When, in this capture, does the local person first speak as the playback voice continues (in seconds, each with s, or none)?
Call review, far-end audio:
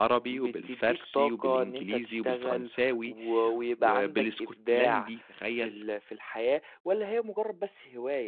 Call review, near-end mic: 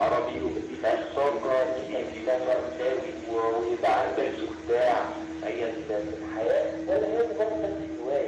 none